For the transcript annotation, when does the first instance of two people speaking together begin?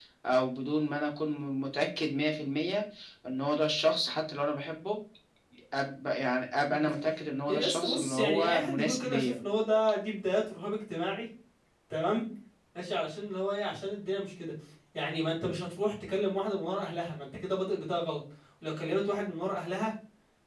7 s

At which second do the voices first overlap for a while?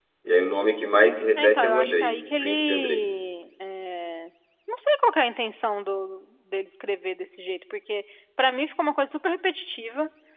1 s

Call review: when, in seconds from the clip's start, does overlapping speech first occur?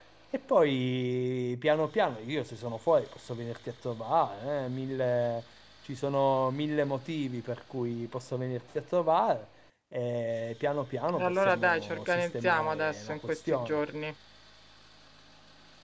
11 s

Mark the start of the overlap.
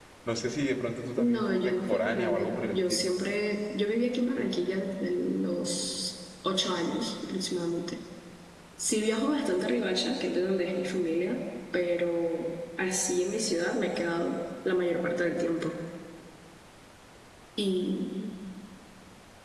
1 s

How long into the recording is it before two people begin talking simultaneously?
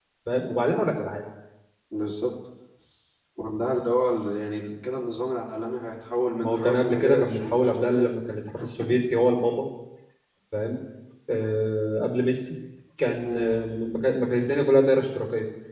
6 s

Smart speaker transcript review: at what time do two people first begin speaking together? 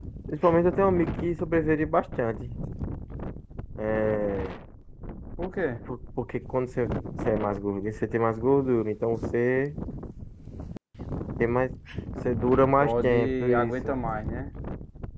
13 s

